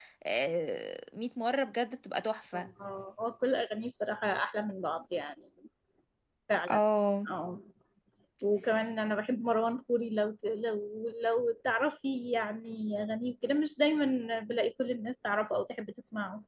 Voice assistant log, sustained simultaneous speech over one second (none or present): none